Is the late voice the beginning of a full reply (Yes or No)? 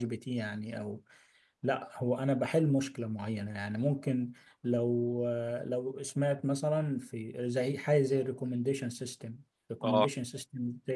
No